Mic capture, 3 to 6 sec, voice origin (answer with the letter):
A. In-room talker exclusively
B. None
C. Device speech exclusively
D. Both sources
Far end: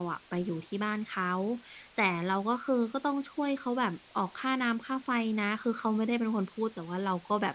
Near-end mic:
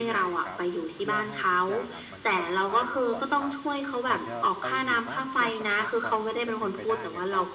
D